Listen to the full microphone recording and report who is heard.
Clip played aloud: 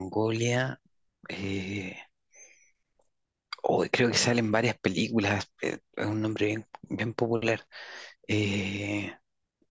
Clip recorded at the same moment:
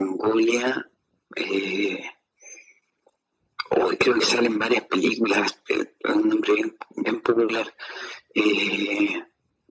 echo only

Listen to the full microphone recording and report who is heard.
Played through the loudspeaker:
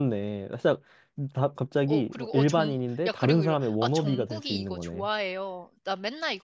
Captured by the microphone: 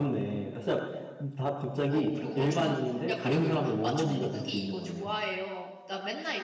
echo only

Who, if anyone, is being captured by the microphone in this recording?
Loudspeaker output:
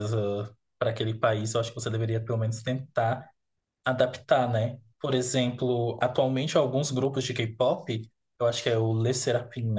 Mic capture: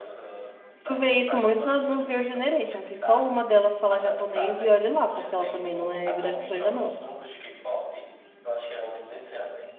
both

